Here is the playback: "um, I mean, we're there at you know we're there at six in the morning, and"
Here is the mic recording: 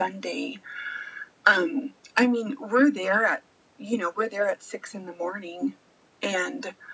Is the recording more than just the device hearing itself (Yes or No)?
No